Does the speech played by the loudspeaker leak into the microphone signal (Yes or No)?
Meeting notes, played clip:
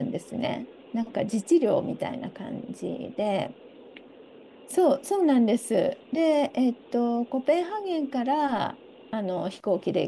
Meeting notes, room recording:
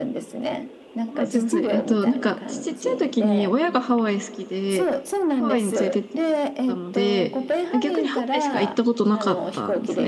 Yes